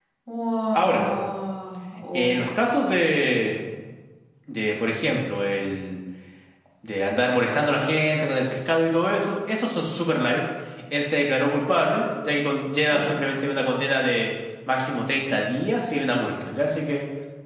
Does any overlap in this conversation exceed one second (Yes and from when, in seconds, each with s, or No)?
No